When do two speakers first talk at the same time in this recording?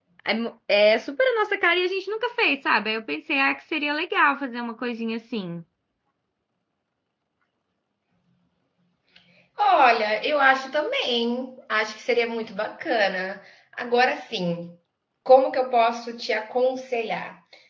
none

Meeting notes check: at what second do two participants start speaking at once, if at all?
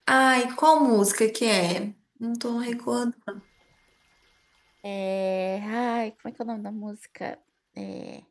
none

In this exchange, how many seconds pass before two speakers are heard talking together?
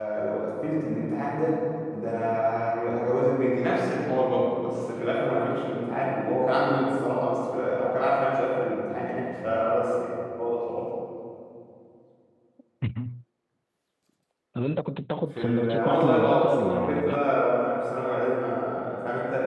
15.3 s

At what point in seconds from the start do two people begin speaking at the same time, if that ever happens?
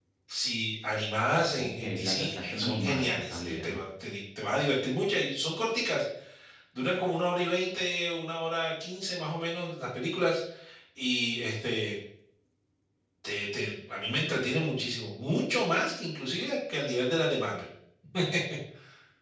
1.6 s

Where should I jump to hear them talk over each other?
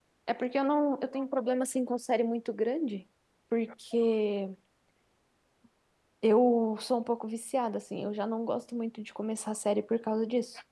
none

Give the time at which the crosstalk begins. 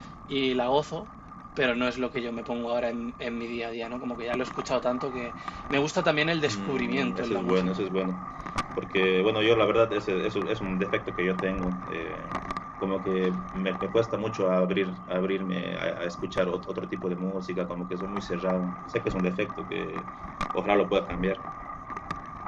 6.5 s

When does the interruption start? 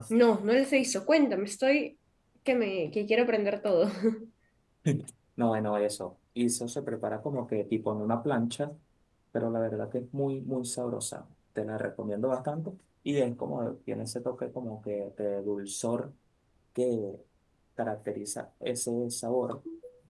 none

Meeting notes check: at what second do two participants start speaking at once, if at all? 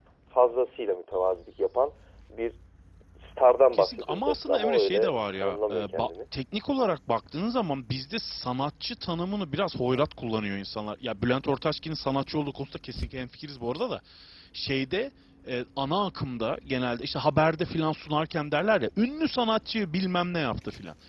3.7 s

